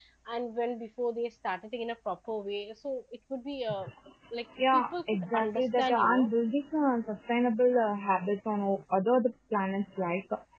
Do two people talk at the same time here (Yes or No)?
Yes